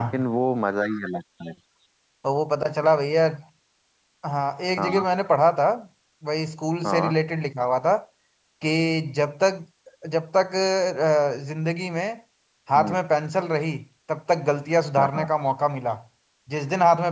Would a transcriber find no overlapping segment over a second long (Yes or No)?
Yes